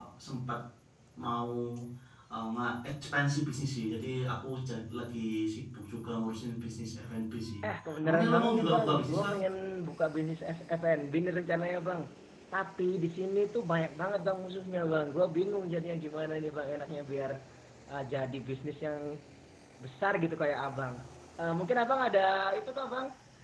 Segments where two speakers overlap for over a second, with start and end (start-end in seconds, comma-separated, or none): 8.0-9.3